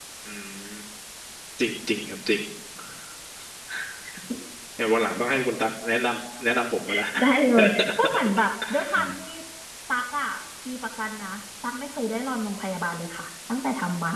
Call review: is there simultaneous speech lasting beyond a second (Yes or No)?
No